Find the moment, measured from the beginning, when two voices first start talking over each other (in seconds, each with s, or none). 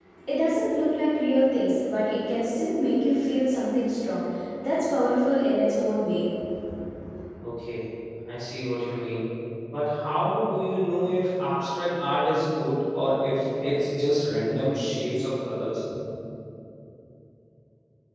none